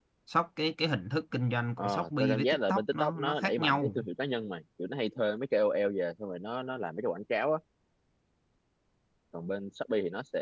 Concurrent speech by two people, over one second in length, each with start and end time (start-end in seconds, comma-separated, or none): 1.8-3.9